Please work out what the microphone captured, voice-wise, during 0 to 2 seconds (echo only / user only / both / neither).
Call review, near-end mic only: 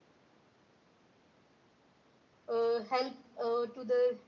neither